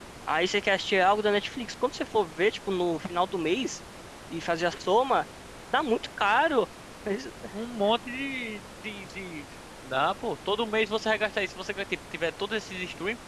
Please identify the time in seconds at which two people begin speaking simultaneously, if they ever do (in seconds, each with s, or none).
none